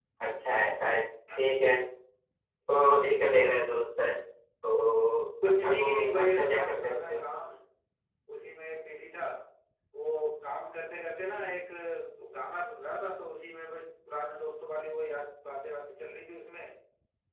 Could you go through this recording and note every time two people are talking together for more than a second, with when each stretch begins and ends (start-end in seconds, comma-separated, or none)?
5.4-7.2